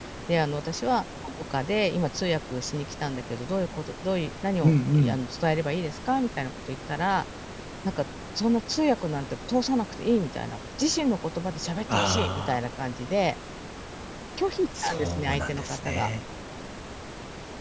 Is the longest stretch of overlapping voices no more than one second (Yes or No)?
No